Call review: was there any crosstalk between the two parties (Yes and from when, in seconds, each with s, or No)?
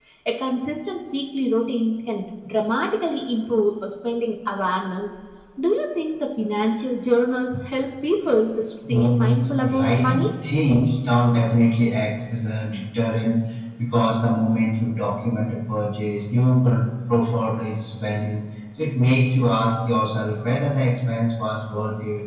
Yes, from 8.8 s